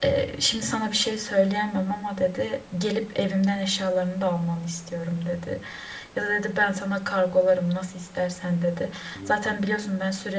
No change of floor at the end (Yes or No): Yes